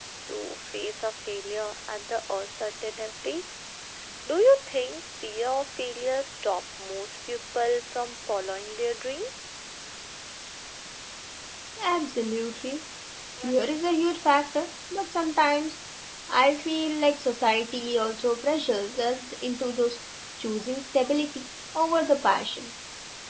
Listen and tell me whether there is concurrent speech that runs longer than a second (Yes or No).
No